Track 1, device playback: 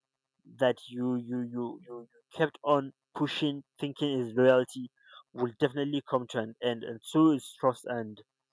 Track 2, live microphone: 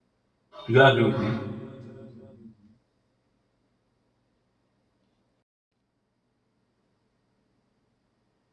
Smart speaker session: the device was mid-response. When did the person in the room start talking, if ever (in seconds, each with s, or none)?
0.7 s